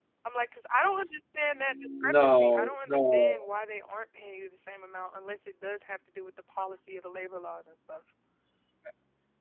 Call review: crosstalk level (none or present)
present